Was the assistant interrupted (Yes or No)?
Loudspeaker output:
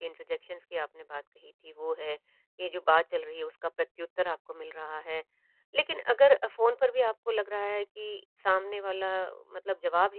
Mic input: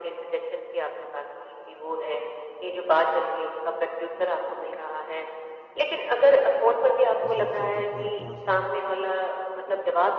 Yes